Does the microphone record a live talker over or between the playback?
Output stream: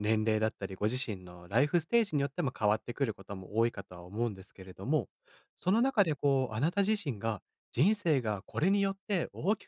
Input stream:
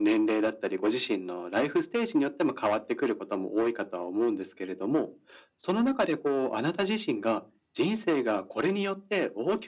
No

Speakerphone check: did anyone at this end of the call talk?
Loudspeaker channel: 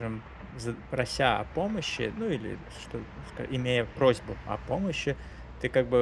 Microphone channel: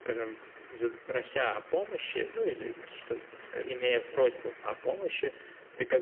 No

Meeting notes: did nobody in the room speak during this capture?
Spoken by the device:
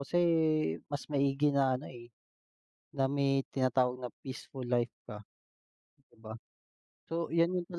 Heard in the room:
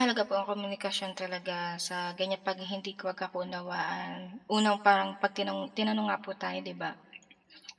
No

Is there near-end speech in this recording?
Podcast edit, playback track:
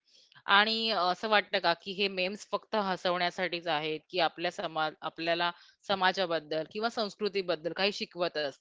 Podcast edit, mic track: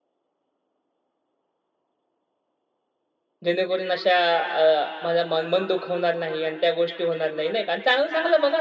Yes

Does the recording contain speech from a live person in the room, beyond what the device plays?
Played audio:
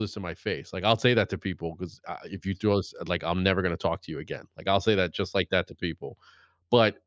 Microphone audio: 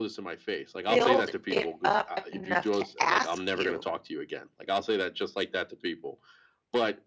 Yes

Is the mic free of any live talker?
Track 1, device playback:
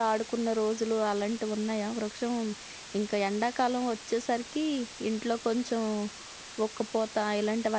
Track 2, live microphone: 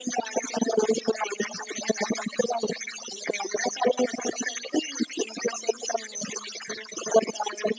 Yes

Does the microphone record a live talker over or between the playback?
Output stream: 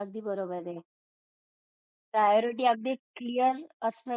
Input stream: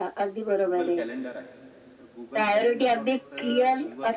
Yes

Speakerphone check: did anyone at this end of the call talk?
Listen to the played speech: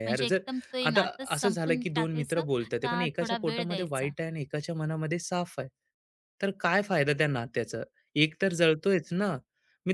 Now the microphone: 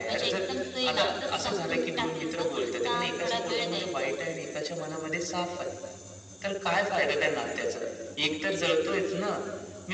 No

